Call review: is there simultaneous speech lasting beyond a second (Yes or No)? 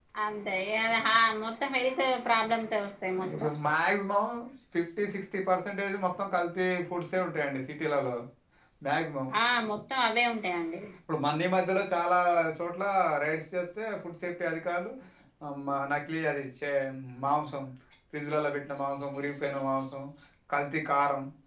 No